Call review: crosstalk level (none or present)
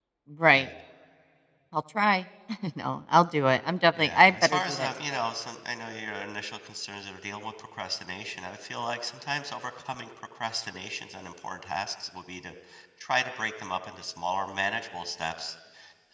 present